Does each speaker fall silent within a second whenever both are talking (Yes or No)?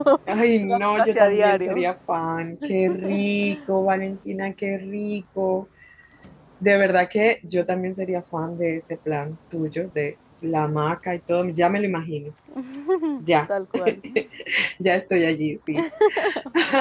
No